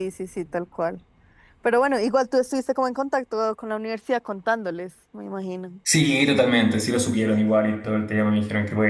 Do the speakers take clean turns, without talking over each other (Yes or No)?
Yes